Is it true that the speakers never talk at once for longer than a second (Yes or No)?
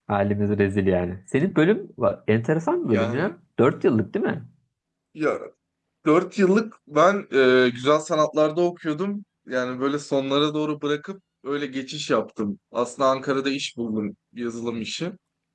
Yes